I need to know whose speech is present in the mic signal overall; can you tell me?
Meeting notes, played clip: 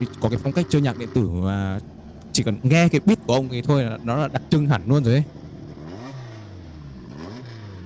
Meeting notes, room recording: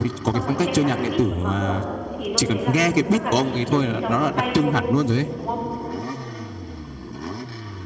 both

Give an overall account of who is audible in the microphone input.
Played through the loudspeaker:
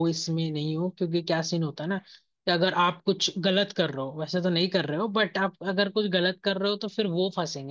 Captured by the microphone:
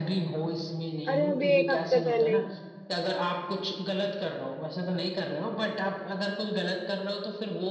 both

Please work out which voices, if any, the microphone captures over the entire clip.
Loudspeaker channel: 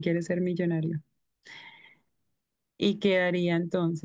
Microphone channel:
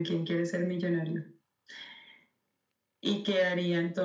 echo only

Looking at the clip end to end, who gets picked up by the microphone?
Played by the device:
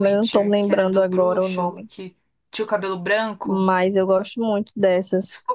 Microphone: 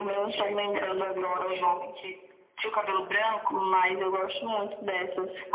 echo only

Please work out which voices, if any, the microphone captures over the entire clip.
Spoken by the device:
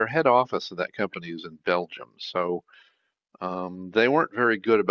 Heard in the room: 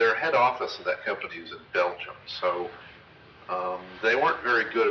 echo only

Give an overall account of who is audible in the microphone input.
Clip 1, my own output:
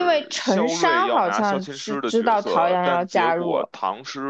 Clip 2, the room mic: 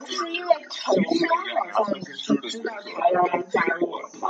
echo only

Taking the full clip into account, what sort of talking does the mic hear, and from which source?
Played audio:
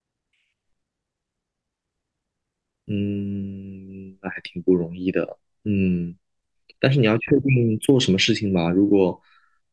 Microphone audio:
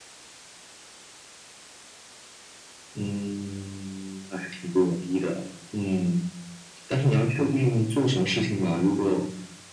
echo only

